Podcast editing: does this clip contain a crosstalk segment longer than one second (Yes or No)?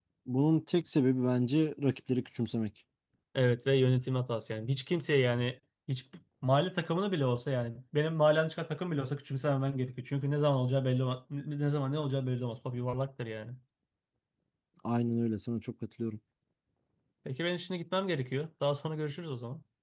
No